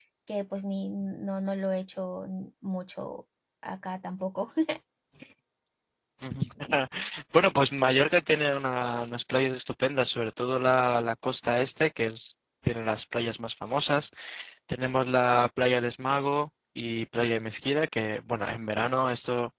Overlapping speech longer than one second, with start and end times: none

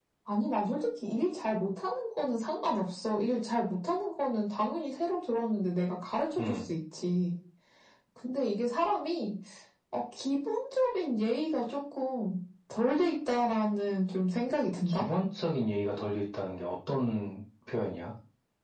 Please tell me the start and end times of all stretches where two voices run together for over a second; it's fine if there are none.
none

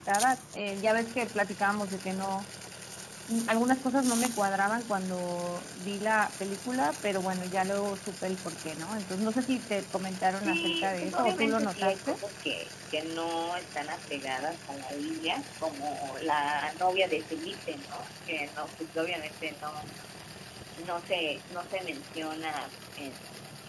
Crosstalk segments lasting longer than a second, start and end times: 10.3-12.2

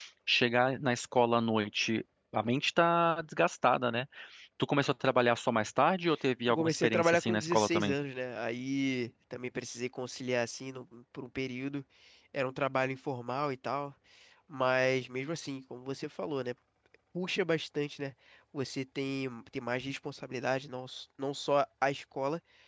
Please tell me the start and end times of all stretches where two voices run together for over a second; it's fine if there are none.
6.5-7.9

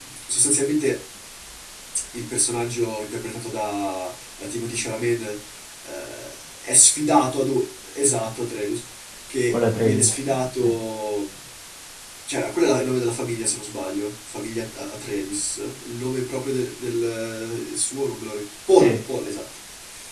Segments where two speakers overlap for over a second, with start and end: 9.5-10.7

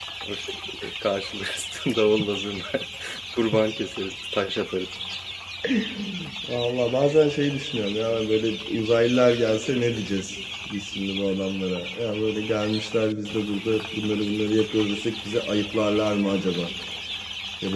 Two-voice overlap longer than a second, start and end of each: none

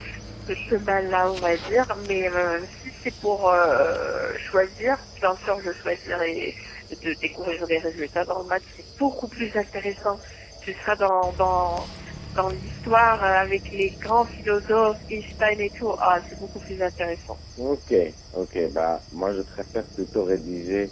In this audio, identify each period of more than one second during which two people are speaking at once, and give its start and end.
none

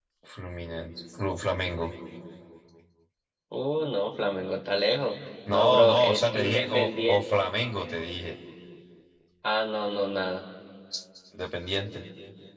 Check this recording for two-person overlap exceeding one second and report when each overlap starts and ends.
5.5-7.2

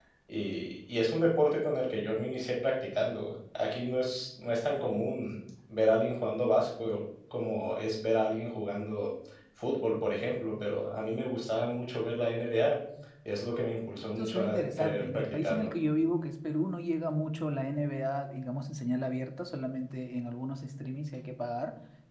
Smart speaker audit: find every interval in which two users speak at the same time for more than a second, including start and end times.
14.2-15.7

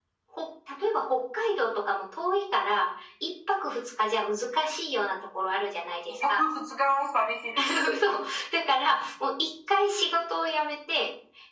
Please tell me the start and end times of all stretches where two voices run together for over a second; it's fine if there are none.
none

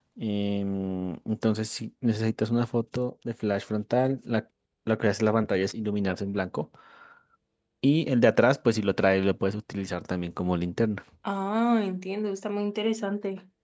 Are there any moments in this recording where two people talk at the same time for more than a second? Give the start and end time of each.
none

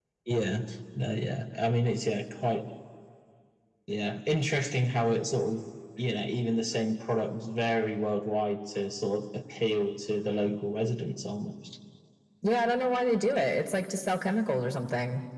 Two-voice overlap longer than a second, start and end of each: none

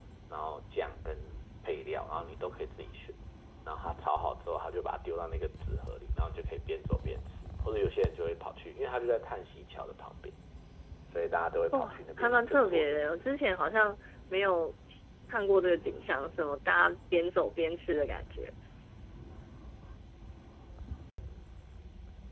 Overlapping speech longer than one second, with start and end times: 11.7-13.2

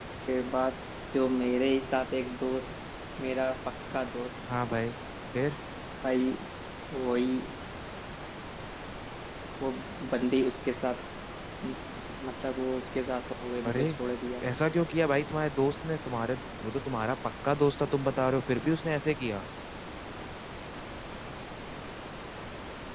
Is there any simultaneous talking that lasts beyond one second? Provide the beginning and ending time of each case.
none

